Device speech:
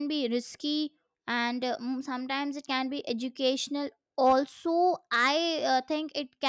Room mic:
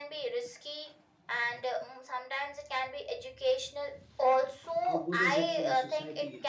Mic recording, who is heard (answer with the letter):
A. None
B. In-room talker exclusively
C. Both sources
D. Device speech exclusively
C